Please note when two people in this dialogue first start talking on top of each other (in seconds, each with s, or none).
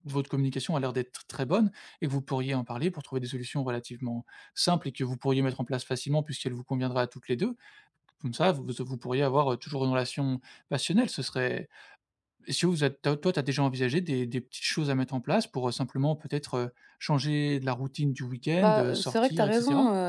18.6 s